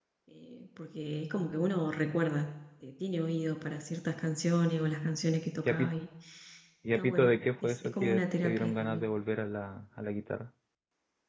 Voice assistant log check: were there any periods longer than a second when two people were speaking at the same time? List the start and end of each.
7.0-9.0

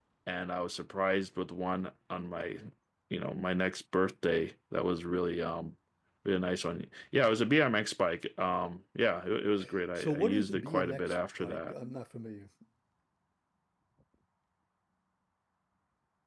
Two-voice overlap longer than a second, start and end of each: 10.0-11.7

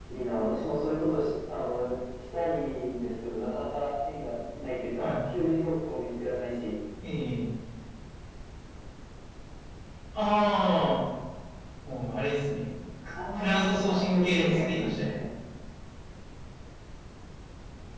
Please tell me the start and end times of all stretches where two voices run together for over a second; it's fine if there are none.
13.3-15.0

